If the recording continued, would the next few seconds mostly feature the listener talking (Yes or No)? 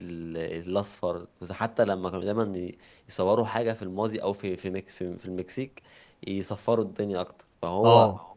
No